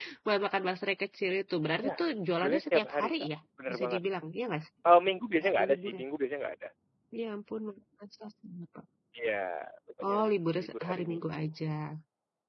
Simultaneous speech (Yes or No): Yes